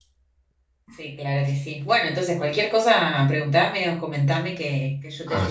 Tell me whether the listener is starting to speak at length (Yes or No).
Yes